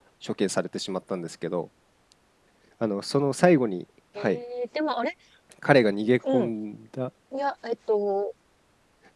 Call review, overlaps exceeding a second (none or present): none